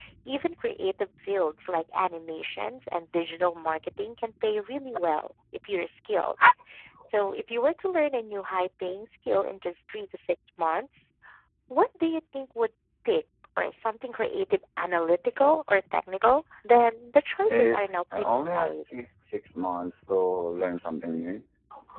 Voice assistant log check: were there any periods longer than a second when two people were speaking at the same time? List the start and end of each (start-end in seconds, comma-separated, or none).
17.5-18.7